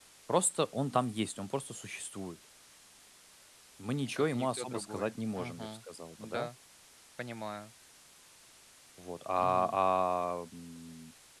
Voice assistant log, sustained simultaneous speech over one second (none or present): present